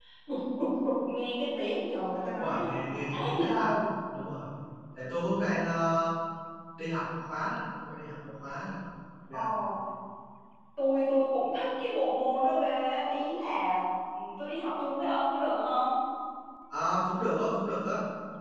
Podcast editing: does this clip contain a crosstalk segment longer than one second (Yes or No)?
Yes